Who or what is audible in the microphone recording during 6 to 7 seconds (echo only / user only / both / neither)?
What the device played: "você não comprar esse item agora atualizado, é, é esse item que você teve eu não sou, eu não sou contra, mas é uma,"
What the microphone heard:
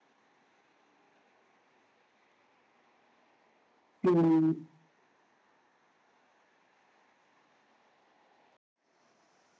neither